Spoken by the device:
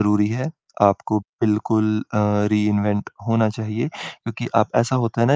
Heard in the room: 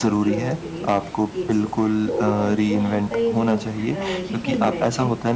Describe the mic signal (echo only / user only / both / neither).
both